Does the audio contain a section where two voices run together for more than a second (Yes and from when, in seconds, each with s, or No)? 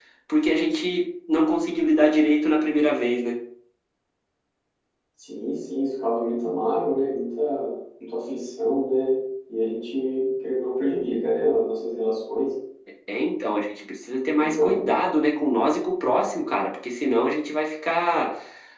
No